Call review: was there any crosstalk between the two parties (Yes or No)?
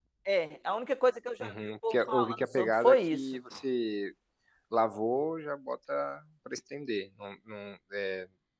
Yes